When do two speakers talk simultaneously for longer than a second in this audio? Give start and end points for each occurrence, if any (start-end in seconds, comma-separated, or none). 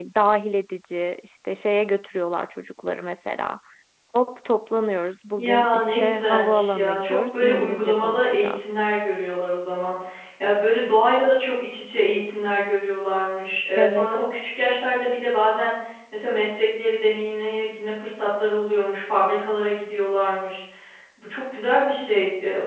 5.4-8.7